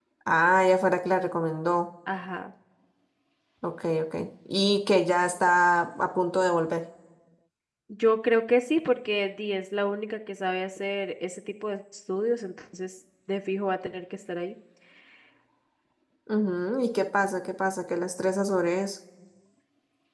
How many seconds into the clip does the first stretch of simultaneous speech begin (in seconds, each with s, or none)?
none